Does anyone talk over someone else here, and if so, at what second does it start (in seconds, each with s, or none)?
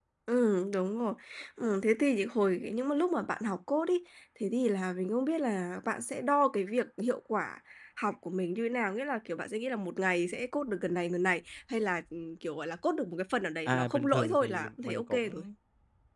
13.7 s